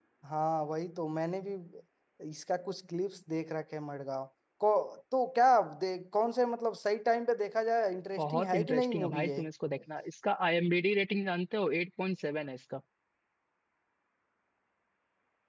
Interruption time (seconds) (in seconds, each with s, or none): 8.2 s